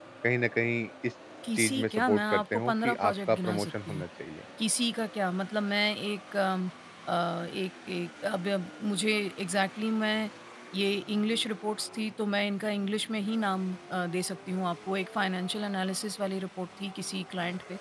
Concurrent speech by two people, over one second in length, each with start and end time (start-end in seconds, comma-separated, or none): 1.6-4.0